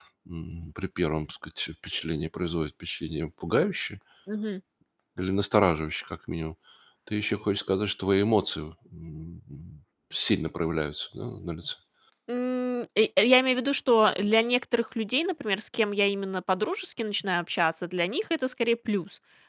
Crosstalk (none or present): none